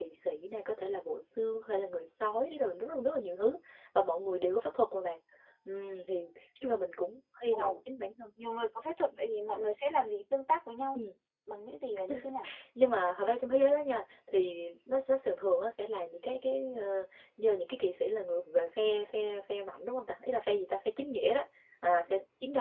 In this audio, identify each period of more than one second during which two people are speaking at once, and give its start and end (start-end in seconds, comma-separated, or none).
none